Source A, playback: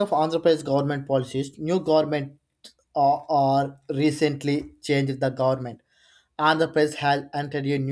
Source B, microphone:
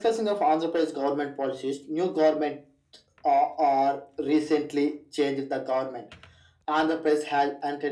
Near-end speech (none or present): none